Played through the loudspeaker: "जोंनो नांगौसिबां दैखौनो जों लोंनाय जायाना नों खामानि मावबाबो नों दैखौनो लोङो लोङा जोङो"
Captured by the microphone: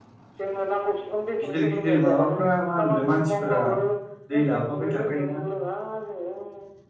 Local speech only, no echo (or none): गिदिर गिदिर माबाफ्रा मा होनोमोनलाय मानसिफोरा दै लाफाबाय थाखाना